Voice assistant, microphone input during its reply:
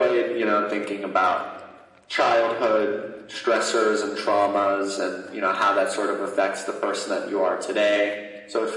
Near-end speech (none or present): none